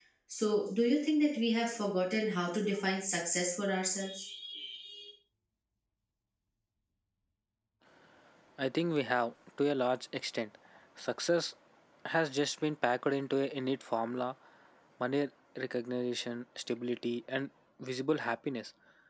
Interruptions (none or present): none